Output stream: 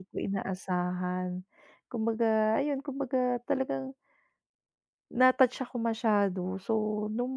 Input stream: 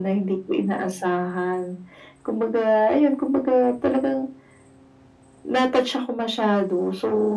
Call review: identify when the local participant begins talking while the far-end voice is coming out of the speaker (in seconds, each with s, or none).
none